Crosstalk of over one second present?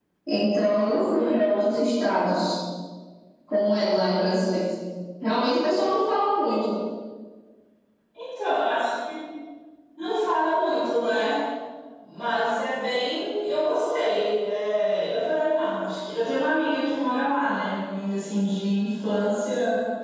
No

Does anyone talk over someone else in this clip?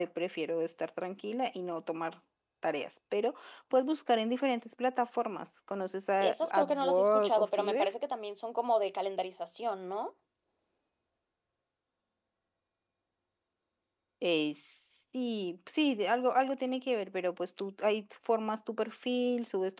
Yes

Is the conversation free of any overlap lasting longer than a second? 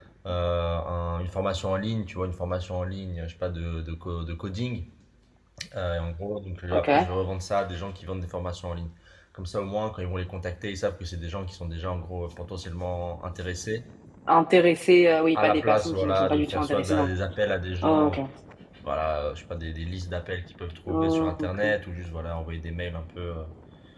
No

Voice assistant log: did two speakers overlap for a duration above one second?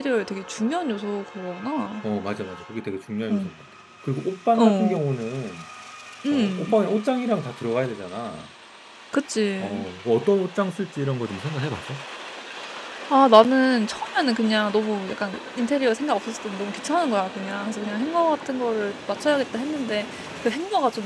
No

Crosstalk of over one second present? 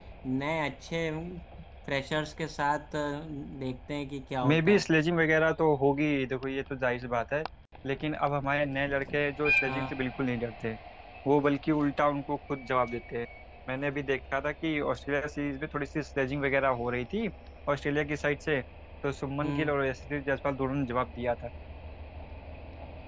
No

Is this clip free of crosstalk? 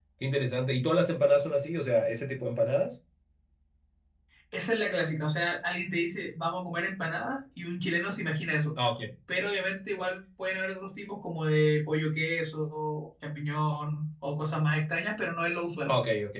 Yes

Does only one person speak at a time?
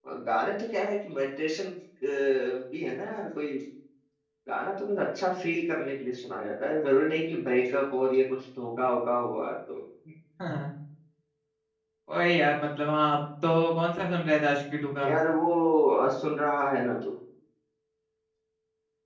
Yes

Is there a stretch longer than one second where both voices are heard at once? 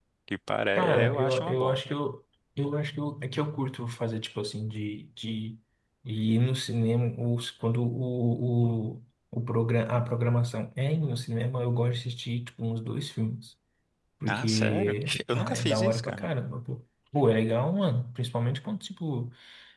Yes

